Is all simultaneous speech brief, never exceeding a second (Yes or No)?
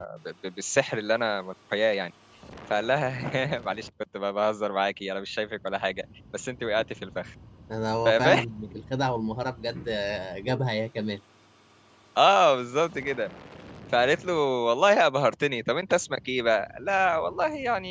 Yes